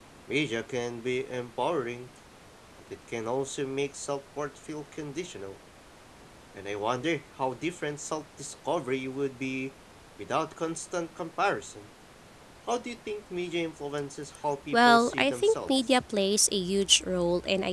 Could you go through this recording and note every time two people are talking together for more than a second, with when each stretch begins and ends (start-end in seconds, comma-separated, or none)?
14.7-15.9